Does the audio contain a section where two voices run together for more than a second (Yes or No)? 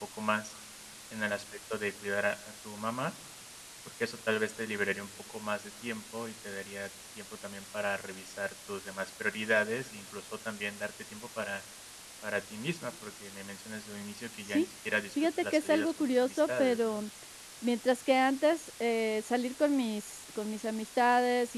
Yes